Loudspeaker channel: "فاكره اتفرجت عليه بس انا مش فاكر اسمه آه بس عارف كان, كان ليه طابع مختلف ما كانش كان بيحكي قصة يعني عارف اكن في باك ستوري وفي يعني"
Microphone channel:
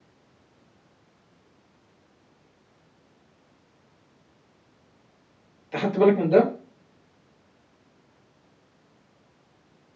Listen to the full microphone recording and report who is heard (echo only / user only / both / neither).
user only